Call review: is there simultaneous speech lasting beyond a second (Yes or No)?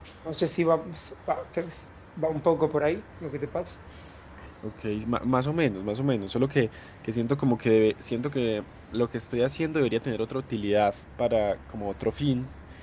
No